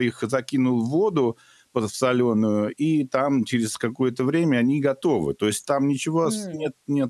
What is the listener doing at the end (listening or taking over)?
listening